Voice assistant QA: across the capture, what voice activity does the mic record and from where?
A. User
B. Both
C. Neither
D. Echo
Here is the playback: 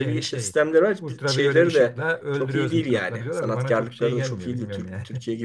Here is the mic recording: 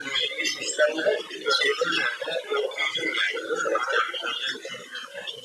D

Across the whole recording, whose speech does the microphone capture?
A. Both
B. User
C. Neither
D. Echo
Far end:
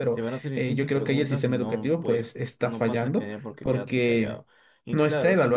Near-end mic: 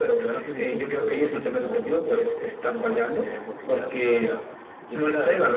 D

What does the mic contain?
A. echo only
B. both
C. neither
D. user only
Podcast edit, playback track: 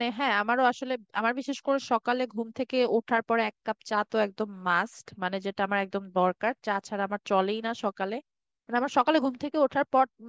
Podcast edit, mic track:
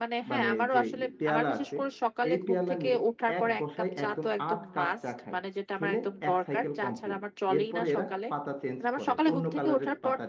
B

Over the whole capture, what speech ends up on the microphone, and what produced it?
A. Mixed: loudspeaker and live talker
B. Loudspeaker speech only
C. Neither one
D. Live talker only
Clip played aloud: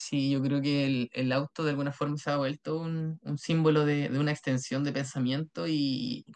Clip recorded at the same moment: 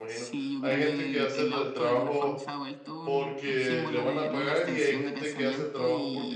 A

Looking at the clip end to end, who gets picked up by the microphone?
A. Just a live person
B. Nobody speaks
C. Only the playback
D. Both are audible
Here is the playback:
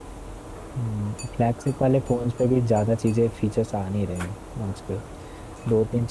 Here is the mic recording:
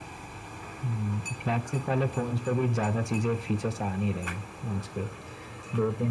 C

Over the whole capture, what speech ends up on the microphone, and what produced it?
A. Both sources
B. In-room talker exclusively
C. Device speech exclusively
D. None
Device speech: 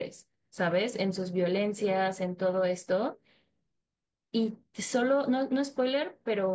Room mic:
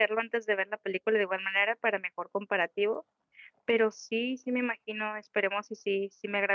B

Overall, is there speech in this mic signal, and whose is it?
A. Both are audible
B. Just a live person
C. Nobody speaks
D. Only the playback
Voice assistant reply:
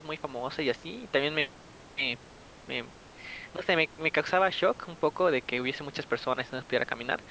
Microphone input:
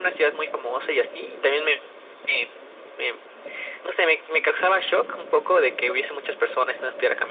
D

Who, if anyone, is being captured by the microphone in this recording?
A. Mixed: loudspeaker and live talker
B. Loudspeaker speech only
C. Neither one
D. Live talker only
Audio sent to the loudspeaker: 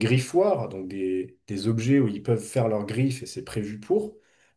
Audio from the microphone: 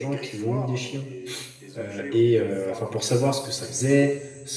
A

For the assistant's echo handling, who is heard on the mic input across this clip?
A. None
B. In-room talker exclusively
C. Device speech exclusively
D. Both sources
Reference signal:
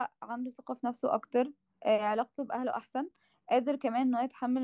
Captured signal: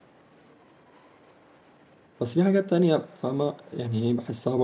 B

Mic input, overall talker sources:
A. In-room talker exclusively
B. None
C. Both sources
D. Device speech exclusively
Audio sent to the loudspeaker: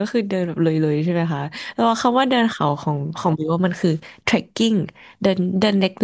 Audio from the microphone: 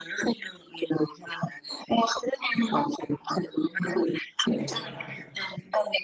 C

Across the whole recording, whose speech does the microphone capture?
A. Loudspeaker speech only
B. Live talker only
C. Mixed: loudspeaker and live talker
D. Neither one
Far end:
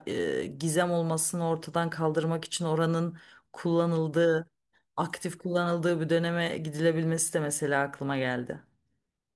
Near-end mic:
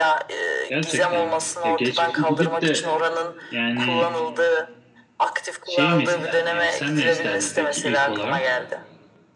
C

